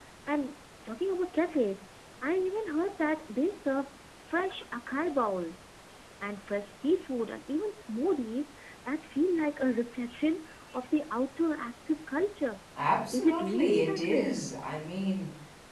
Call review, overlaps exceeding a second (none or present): present